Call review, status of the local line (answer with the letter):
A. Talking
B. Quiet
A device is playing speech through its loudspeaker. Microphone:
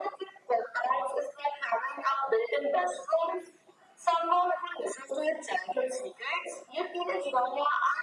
B